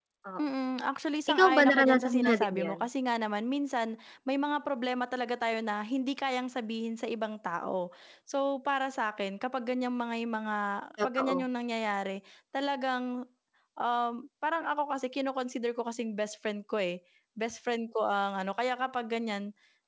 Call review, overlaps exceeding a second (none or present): present